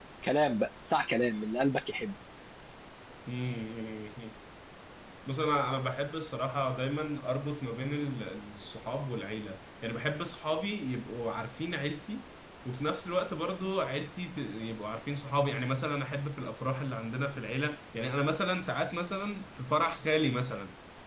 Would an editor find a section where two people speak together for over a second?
No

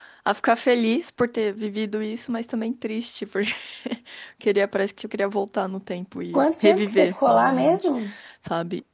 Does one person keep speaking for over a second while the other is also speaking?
Yes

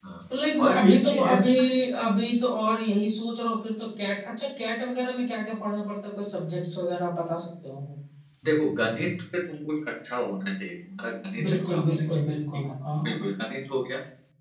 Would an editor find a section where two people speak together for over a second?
Yes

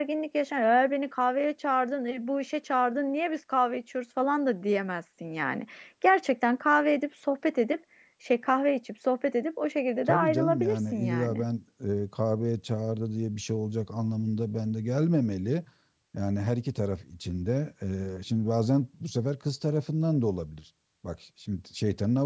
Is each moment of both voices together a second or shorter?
No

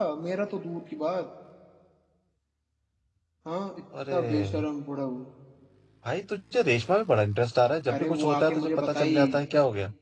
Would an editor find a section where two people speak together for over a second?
Yes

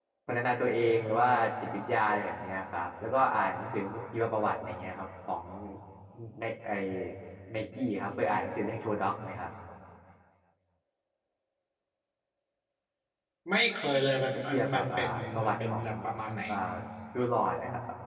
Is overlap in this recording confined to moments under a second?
No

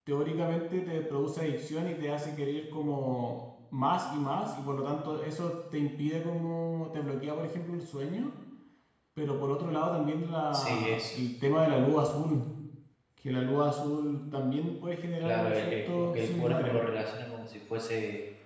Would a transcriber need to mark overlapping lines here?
Yes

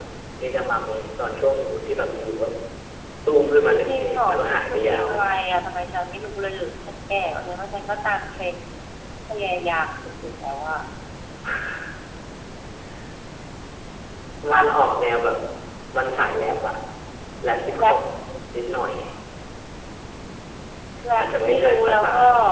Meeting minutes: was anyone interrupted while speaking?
Yes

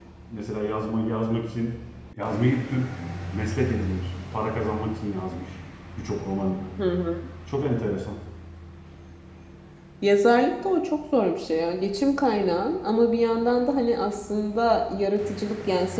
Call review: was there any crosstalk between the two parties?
No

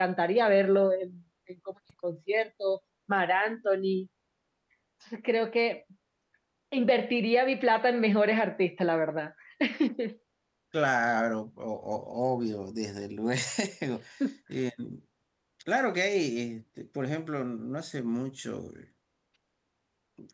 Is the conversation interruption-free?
Yes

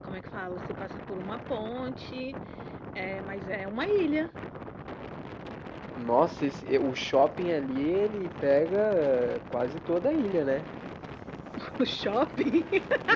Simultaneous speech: No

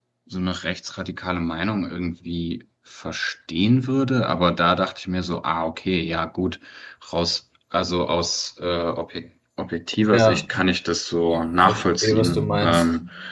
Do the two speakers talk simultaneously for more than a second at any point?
Yes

